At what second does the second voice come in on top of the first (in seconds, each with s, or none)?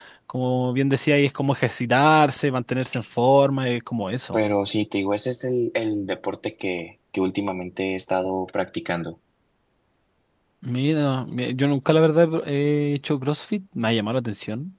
none